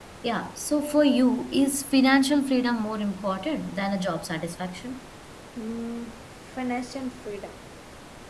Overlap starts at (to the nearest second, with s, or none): none